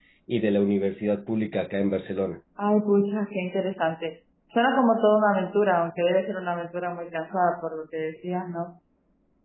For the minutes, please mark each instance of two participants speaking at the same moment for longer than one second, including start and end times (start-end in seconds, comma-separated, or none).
none